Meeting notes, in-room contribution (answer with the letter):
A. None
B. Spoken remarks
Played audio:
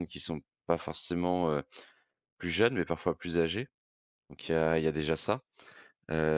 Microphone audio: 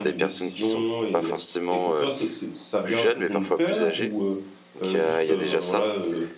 B